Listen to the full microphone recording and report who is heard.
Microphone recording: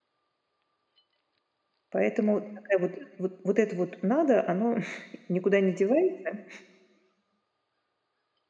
user only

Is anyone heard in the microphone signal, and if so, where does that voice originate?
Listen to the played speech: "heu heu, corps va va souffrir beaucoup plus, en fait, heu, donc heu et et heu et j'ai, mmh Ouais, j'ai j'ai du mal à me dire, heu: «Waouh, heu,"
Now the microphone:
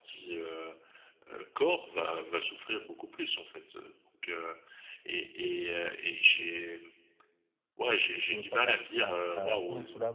both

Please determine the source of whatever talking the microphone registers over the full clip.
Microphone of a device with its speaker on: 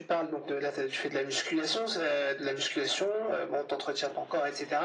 echo only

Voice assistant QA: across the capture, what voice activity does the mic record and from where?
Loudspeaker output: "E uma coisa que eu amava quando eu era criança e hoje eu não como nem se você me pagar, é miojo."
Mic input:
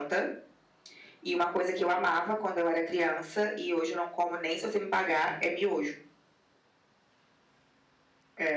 echo only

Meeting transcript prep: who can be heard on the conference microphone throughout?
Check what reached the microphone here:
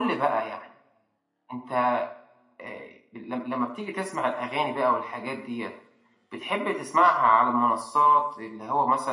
echo only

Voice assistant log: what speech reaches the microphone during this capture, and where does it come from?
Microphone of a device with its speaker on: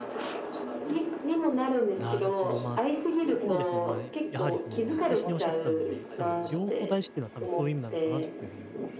both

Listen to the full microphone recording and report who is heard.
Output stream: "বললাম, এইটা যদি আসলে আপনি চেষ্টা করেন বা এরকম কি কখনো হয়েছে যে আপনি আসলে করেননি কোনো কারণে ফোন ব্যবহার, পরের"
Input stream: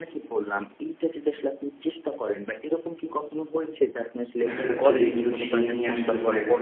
both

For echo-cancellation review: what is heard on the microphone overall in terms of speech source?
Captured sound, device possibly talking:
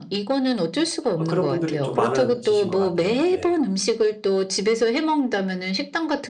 both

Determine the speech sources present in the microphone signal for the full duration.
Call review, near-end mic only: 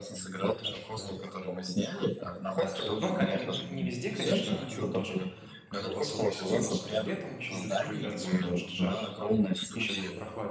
both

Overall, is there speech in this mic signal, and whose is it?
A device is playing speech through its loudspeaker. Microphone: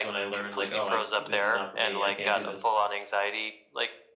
both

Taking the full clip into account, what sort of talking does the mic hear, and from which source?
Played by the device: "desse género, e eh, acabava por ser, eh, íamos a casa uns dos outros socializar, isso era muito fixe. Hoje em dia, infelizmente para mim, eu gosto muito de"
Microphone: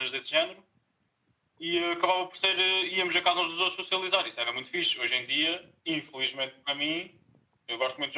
echo only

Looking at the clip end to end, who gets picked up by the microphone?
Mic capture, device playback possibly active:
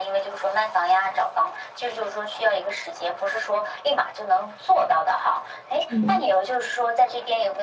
both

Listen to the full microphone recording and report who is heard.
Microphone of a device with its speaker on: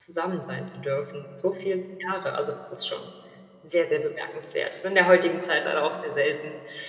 user only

